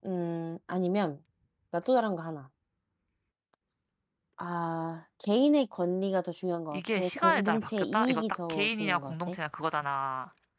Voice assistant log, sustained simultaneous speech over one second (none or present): present